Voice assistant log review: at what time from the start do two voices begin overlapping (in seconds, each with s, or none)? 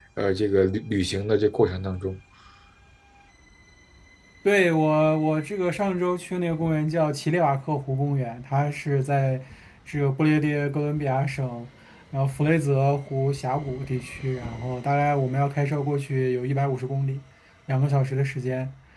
none